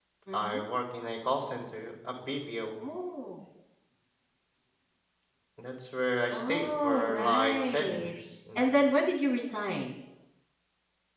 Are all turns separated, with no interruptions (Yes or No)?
No